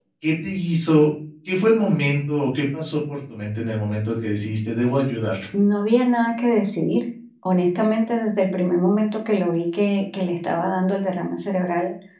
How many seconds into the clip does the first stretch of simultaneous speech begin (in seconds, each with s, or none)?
none